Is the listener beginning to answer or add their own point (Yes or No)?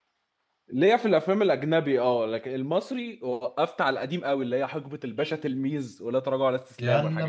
Yes